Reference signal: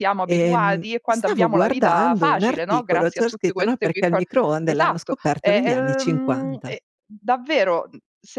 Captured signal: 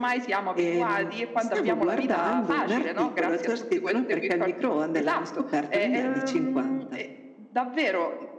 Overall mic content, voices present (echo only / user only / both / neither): echo only